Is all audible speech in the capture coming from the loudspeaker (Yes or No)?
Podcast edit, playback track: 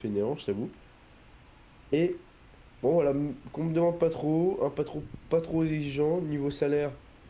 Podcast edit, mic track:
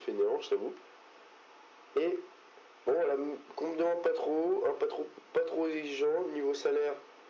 Yes